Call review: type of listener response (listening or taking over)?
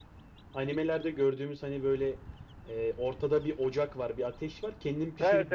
taking over